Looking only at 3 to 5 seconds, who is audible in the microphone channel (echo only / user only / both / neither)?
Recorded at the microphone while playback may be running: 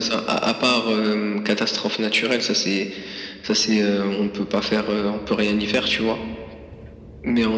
echo only